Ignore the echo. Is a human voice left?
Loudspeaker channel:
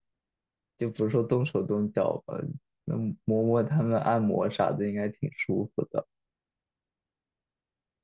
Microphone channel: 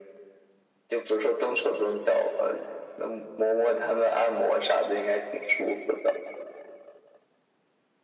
No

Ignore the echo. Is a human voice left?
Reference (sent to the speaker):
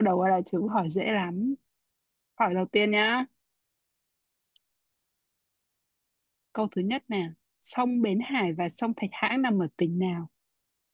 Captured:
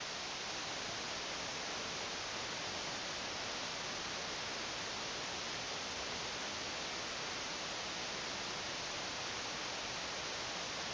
No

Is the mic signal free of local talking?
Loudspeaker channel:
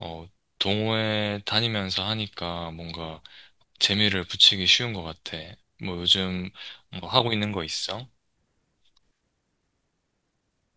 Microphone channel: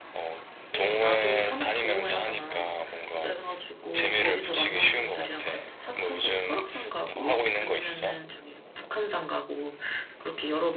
No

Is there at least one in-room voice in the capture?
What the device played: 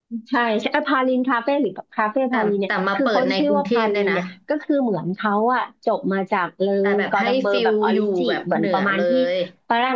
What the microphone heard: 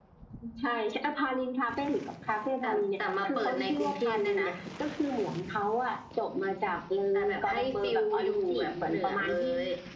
No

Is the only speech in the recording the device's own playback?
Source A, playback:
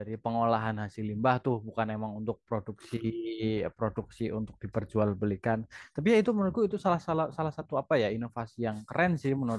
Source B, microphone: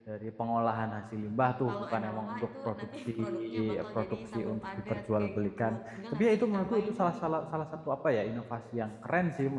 No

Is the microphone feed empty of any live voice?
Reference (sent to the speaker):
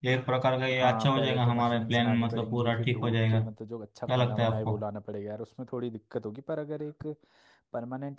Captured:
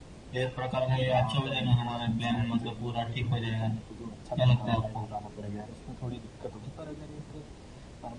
Yes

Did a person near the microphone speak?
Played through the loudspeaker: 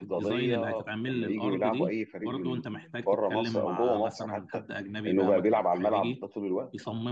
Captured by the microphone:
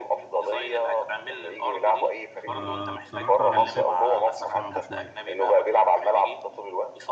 Yes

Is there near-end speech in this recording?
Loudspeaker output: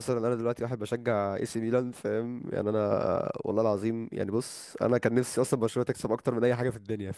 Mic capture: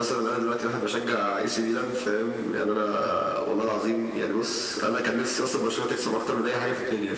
No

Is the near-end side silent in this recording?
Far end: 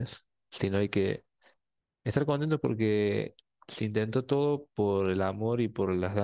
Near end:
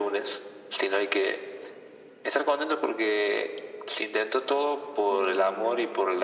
No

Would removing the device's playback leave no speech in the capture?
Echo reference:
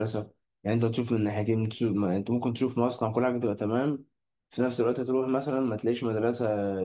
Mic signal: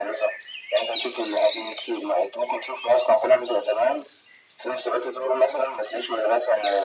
Yes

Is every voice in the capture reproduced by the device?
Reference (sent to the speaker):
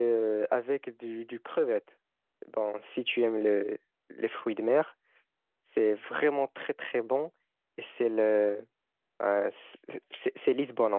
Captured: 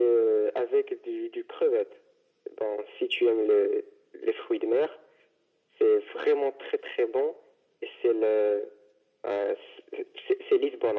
Yes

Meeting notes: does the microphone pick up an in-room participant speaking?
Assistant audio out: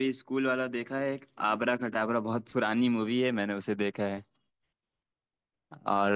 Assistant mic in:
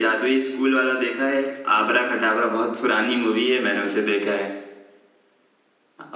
No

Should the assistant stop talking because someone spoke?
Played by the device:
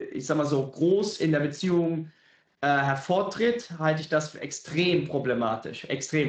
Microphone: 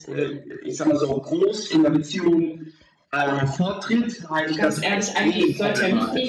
Yes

